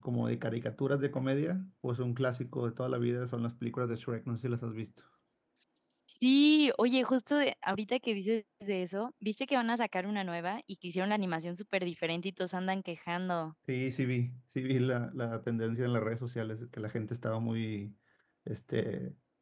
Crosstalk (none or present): none